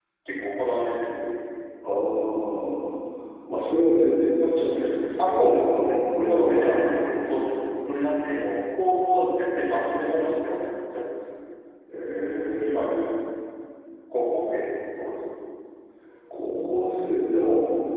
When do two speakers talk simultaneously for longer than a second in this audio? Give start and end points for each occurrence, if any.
5.2-6.8

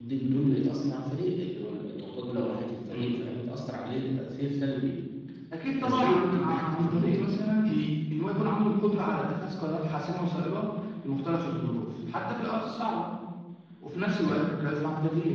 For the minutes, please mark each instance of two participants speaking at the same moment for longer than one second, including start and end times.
5.8-7.4

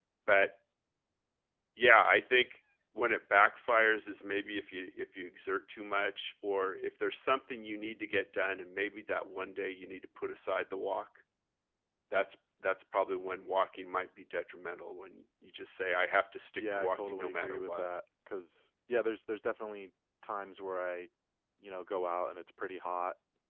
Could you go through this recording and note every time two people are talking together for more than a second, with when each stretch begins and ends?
16.6-17.9

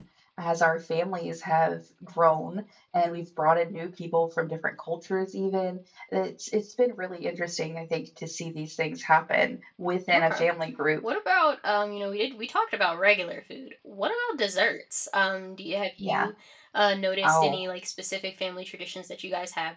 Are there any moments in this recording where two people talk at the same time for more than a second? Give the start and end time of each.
none

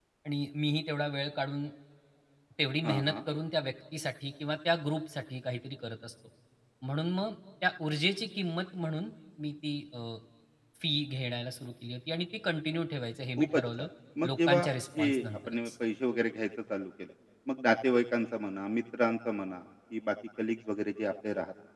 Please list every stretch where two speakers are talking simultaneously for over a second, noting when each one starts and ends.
14.3-15.7

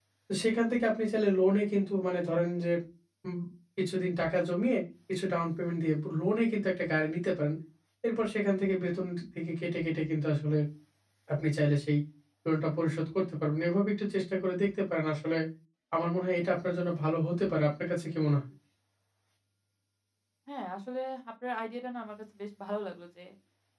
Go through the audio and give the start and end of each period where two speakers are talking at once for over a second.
none

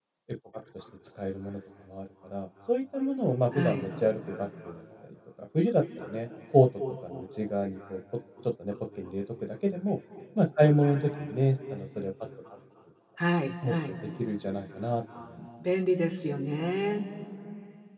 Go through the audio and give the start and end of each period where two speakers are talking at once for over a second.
none

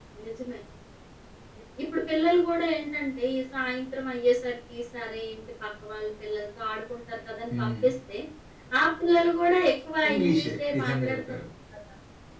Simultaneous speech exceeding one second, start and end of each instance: 10.1-11.4

